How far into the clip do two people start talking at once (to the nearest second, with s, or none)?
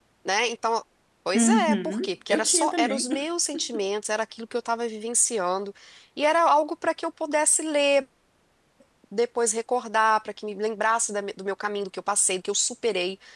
1 s